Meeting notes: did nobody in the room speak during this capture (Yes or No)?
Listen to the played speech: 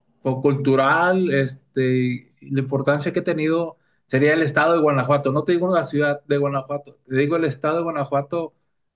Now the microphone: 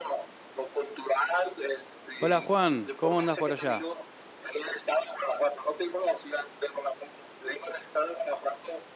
No